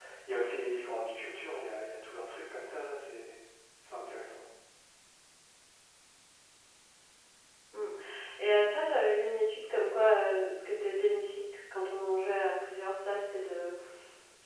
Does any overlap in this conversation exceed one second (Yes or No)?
No